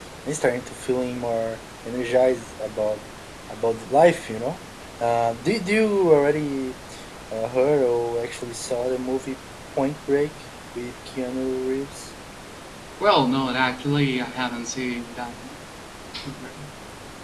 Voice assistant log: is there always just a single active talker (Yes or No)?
Yes